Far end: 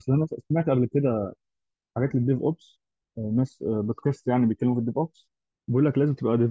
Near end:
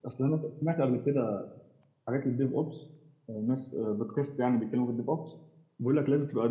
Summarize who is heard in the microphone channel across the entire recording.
echo only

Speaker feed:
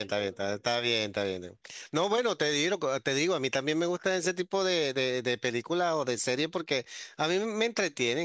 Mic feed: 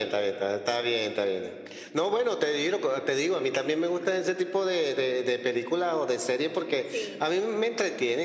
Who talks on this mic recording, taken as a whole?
both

